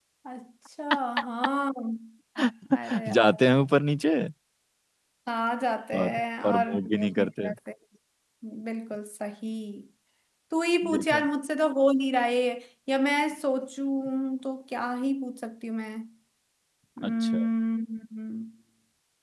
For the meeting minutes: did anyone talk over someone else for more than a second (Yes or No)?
Yes